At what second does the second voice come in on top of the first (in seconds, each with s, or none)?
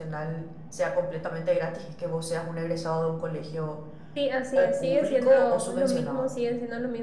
4.6 s